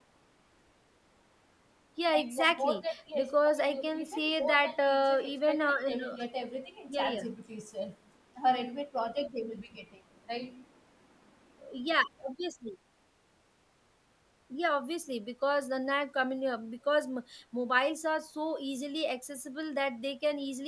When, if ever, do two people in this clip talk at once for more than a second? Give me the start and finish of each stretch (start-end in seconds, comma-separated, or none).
2.1-6.1